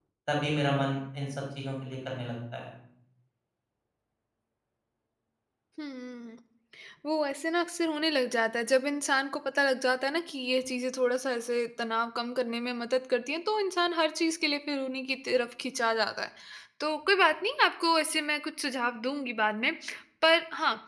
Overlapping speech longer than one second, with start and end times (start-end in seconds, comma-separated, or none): none